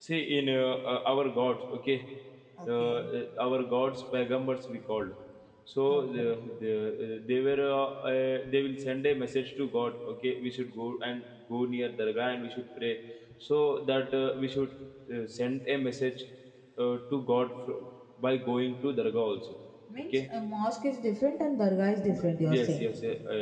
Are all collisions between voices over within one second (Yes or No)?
Yes